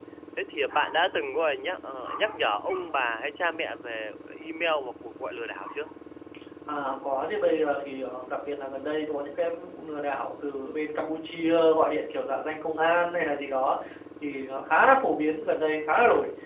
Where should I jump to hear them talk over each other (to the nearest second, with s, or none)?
none